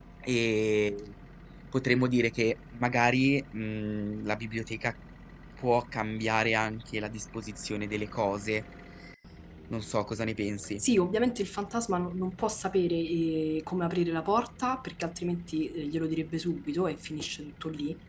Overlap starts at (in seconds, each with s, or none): none